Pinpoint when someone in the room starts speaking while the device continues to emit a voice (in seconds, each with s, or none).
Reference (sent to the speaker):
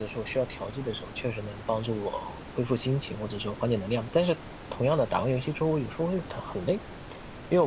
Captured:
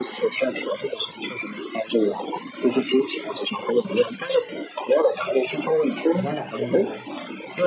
6.1 s